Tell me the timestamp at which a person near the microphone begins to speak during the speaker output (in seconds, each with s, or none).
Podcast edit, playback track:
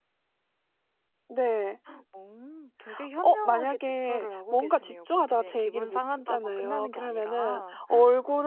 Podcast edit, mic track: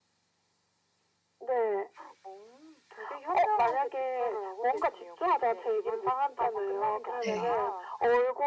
7.2 s